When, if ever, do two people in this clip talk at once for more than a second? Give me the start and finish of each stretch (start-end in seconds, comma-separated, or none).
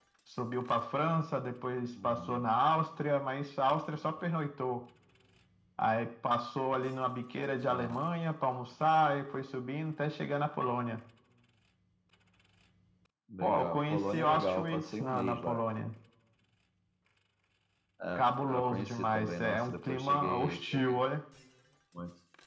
13.4-15.6, 18.2-20.9